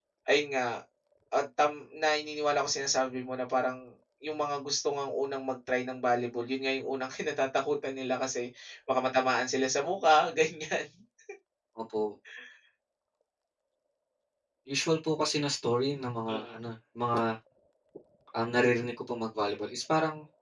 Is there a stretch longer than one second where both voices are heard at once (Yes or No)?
No